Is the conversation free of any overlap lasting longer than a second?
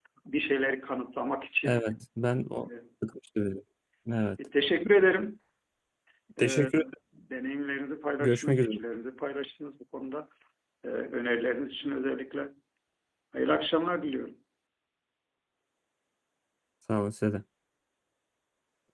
Yes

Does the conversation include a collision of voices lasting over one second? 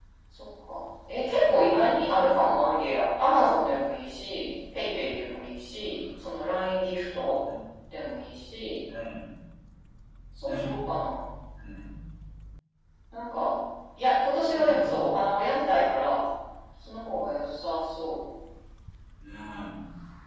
No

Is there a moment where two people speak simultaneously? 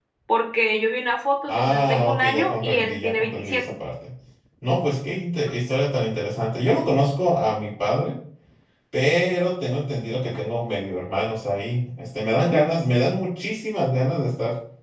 Yes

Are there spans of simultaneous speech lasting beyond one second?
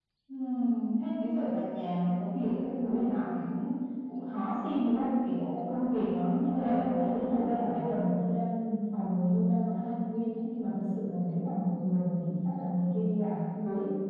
Yes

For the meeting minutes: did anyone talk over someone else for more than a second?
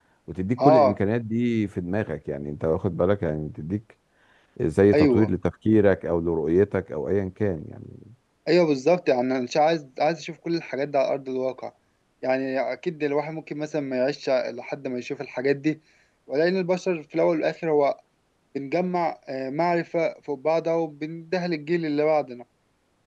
No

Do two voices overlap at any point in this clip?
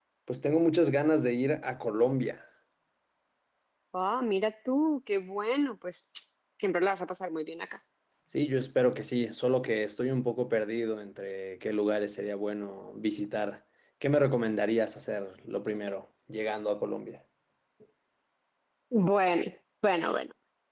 No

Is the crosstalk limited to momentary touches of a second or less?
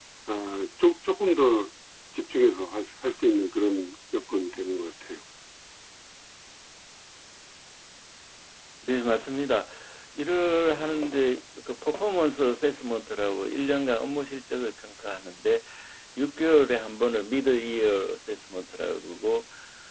Yes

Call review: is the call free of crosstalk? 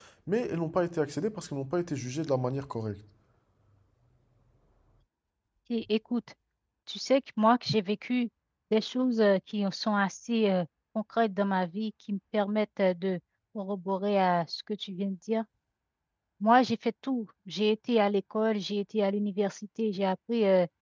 Yes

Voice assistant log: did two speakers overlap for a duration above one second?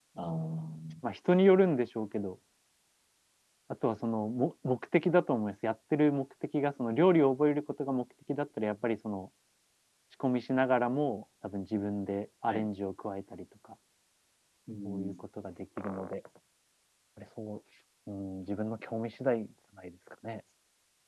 No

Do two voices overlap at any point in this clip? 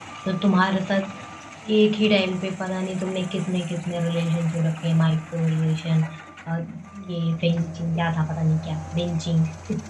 No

